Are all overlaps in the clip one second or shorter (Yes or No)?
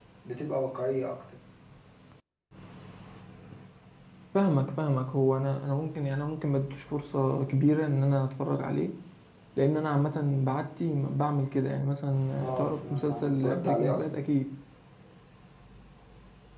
No